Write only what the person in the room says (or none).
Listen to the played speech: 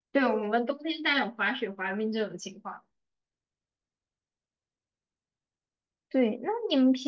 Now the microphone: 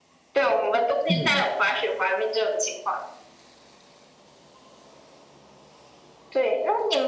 嗯，